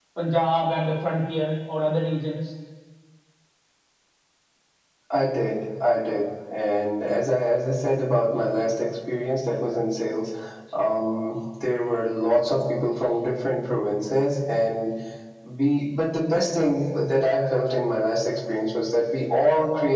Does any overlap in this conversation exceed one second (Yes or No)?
No